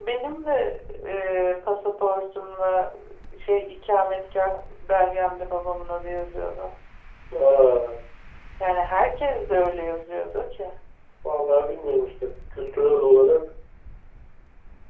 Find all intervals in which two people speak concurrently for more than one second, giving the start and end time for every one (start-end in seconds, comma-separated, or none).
none